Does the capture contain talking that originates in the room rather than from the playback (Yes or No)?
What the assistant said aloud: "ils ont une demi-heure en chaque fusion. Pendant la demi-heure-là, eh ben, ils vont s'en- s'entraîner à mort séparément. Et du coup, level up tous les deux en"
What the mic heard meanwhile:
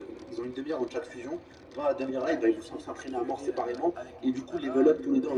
Yes